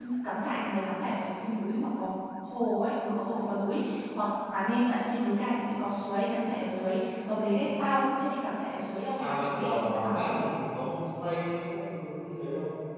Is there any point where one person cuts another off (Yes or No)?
Yes